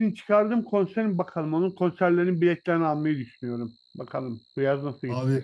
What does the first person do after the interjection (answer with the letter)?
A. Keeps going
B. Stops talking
B